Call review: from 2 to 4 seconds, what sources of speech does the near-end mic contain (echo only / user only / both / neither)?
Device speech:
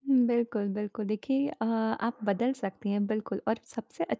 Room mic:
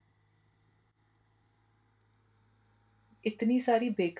user only